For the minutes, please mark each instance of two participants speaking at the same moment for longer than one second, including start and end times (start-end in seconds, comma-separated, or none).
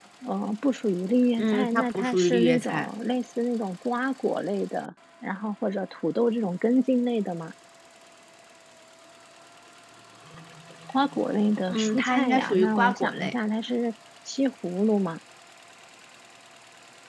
1.4-2.9, 11.7-13.3